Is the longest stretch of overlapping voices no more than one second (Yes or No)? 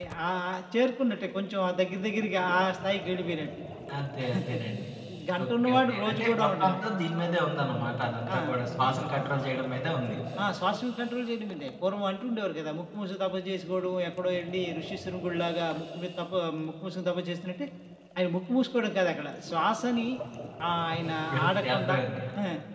No